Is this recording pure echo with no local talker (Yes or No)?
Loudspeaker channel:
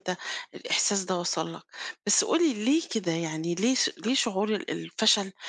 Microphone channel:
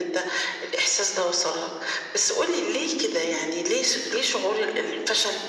Yes